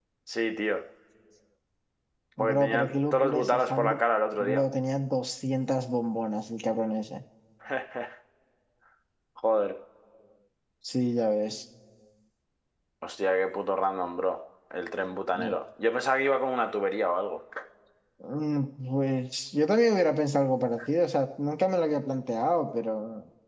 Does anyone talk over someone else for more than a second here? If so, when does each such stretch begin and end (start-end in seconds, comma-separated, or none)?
2.4-4.0